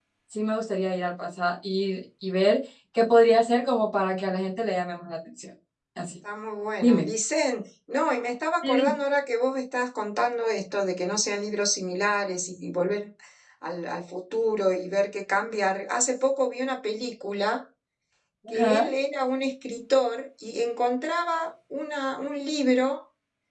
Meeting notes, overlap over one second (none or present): none